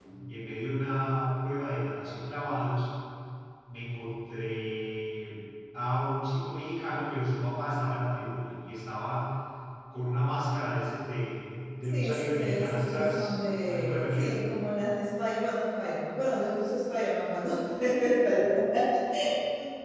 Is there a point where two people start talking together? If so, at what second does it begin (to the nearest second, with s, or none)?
12 s